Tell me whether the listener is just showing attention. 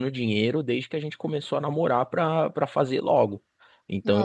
Yes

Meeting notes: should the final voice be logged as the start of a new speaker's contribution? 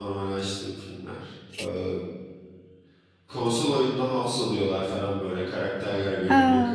No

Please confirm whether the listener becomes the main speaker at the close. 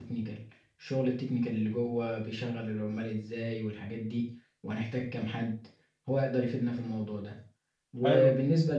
No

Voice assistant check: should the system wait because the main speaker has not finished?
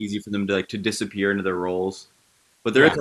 No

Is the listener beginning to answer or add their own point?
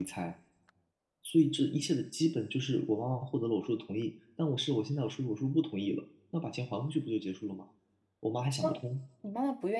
Yes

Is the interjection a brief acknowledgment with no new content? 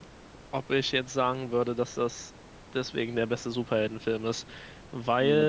No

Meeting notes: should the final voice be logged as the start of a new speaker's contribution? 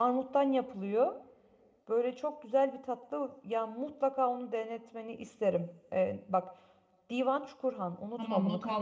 Yes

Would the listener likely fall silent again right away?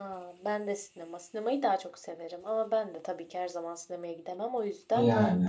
Yes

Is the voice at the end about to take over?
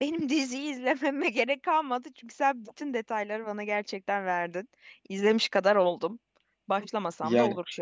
Yes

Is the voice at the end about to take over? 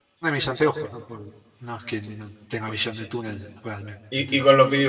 Yes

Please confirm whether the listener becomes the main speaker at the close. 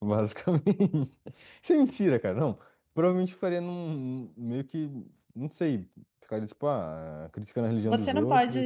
Yes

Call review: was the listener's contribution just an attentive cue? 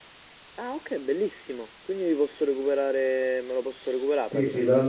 No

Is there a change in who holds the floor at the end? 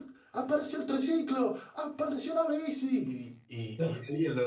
No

